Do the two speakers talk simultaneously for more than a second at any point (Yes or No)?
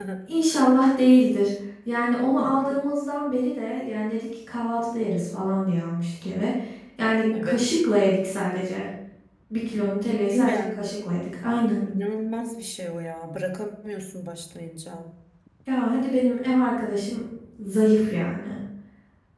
No